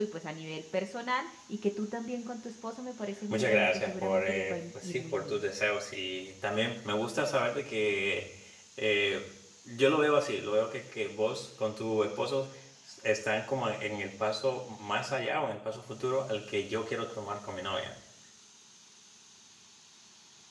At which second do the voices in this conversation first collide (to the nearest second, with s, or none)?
3 s